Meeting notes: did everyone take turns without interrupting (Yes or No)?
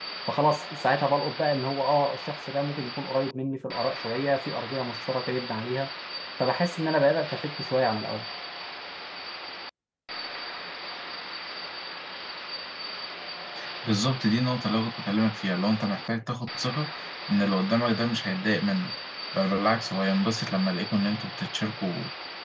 Yes